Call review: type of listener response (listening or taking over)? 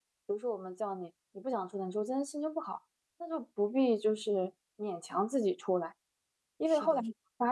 listening